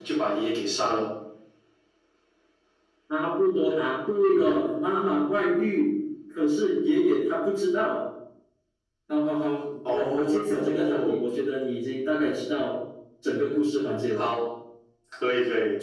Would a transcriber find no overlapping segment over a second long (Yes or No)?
No